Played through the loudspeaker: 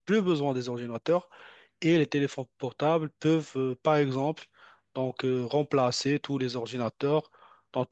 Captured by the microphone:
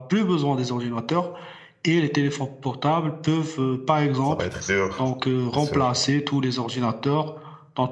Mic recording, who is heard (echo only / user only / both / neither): both